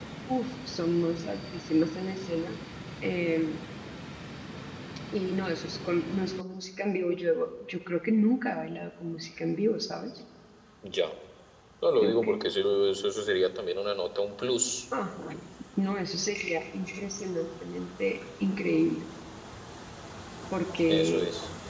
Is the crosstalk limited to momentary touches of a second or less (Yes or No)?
Yes